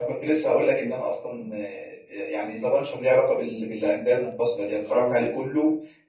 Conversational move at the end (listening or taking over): listening